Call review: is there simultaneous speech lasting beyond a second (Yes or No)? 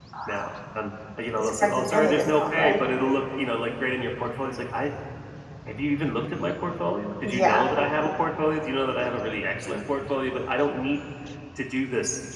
Yes